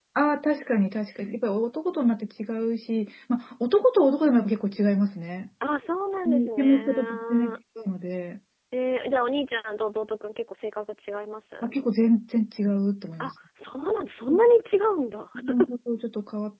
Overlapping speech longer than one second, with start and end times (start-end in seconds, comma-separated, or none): 6.2-7.5